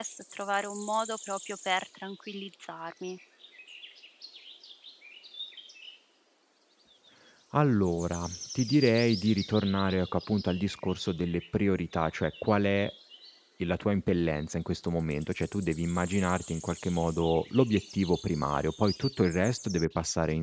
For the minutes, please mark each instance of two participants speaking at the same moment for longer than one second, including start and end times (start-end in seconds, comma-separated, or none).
none